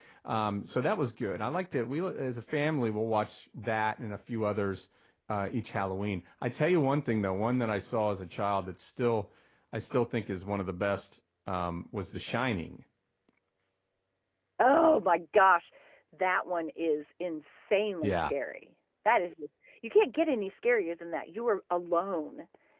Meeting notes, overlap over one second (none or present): none